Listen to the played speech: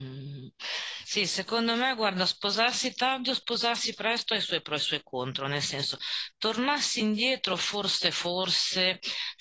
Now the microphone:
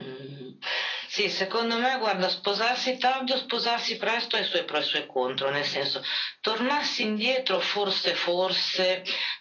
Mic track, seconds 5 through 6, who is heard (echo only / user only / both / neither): echo only